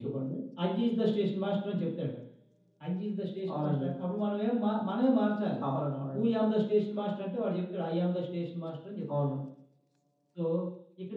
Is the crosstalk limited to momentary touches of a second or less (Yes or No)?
Yes